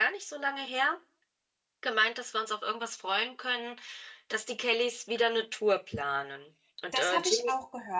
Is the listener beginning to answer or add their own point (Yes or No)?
Yes